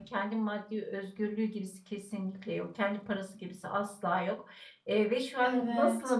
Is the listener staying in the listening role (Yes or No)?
Yes